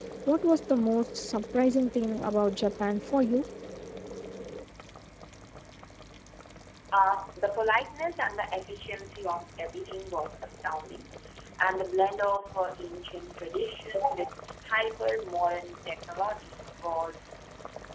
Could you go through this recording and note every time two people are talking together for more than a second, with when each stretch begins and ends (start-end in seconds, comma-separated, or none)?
none